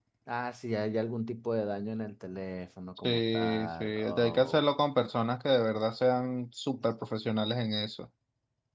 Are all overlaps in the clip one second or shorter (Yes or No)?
No